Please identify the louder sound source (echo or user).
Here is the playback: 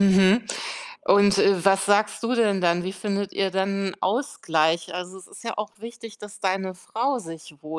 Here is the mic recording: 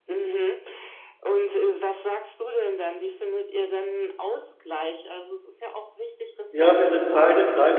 user